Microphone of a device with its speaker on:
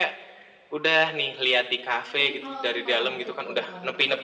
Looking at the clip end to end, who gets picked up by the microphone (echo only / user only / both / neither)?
both